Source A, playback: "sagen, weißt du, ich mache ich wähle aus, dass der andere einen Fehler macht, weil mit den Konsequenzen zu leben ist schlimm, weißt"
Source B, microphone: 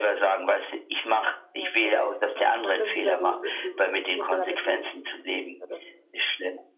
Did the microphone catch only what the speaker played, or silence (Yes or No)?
No